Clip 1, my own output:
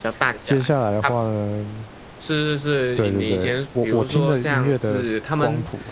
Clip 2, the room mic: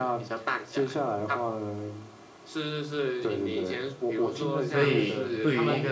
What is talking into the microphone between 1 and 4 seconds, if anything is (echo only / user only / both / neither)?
echo only